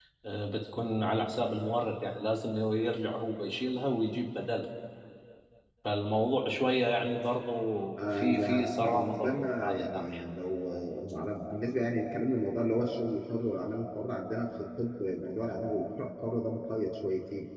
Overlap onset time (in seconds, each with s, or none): 8.2 s